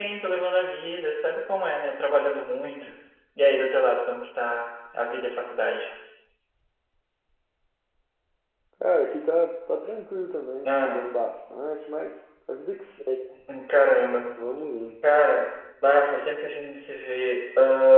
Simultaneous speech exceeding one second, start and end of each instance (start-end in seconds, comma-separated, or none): none